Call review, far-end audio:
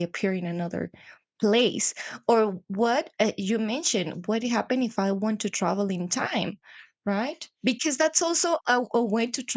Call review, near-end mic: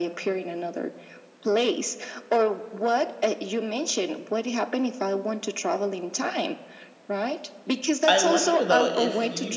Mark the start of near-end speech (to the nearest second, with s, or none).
8 s